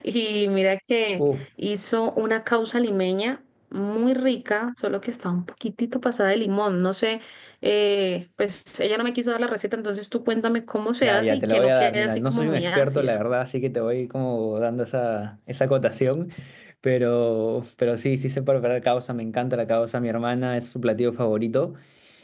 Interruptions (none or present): present